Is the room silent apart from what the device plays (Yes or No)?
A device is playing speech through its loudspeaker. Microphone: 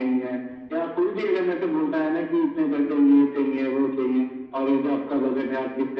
Yes